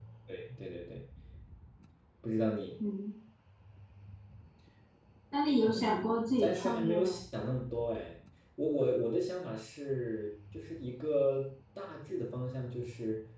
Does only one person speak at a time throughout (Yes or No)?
No